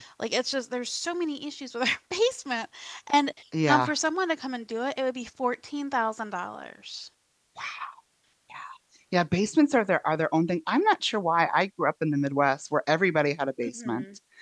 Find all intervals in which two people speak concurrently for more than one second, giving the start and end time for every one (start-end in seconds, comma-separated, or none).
none